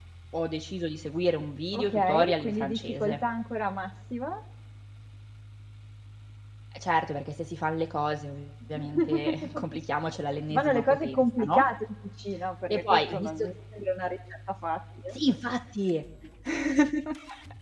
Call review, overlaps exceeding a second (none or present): present